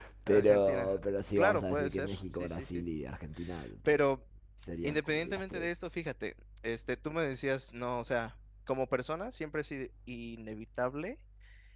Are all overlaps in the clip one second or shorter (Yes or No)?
No